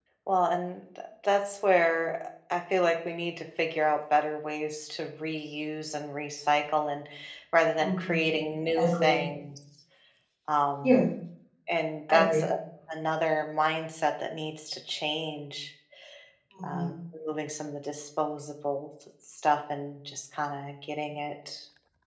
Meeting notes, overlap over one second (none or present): none